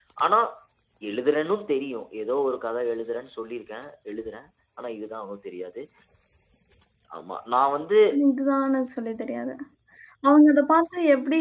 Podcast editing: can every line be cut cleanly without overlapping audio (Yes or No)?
Yes